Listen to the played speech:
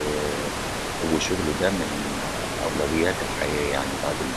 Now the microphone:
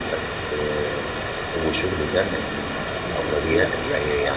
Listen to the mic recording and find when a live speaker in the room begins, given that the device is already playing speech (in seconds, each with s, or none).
3.0 s